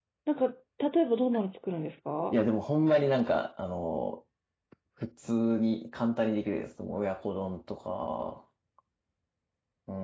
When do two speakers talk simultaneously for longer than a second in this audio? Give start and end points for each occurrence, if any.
none

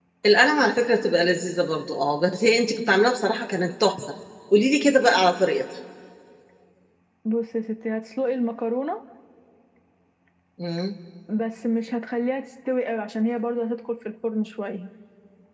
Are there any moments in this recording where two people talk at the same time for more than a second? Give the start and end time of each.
none

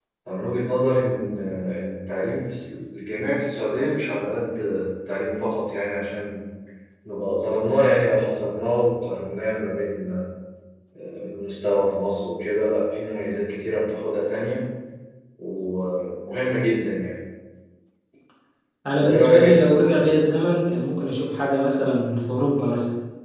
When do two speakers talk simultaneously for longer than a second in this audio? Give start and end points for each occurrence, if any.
18.9-20.3

